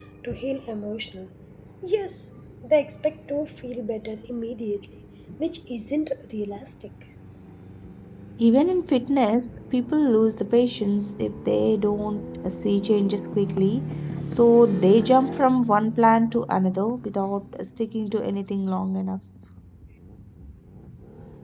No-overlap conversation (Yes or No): Yes